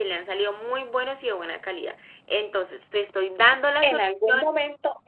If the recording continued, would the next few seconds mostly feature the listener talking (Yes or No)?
Yes